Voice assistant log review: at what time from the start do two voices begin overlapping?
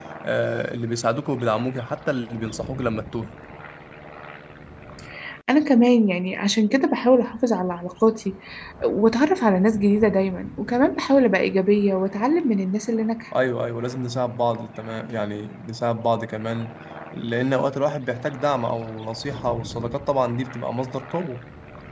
none

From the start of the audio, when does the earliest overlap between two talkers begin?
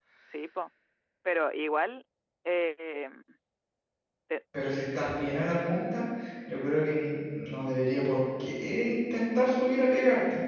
none

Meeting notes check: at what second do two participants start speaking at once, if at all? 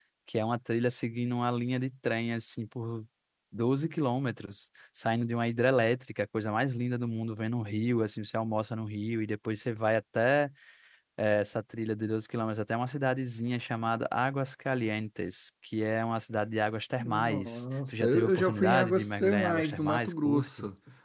17.0 s

